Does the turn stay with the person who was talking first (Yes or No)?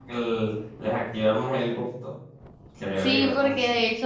No